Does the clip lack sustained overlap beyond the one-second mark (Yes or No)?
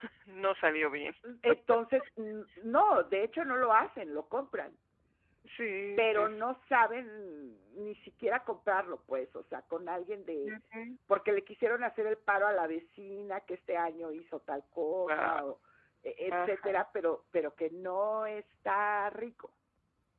Yes